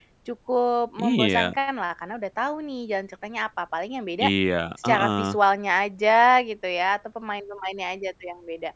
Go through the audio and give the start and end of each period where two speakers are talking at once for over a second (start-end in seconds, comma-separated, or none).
none